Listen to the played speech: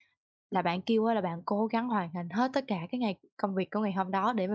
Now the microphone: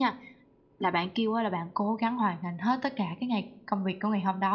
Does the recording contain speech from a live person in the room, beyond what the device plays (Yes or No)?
No